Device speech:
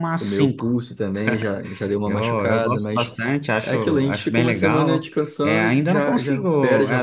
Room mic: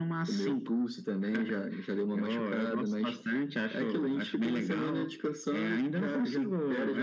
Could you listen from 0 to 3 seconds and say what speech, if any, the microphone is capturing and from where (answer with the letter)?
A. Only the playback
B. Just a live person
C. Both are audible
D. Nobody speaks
A